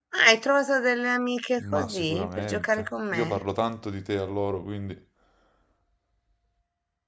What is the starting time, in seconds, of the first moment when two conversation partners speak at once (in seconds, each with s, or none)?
1.6 s